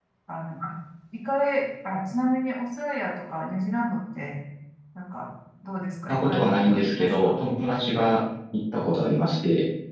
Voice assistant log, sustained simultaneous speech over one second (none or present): present